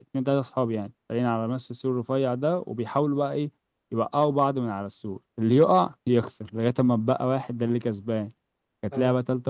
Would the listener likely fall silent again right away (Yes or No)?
Yes